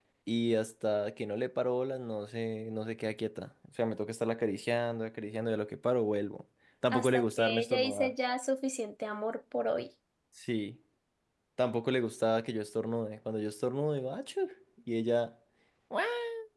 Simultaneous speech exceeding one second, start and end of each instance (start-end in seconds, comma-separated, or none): 6.9-8.1